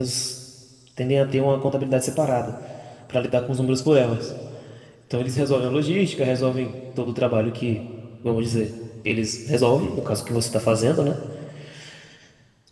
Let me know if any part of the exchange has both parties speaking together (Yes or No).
No